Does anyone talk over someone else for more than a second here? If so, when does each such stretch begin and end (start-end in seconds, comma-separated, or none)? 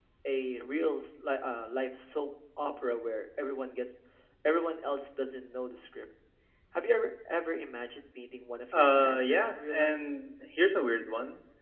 8.8-10.0